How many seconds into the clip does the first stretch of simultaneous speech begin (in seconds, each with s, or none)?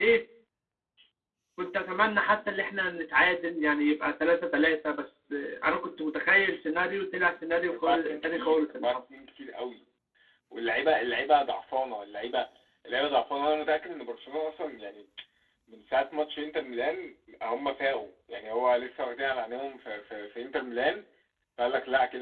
7.7 s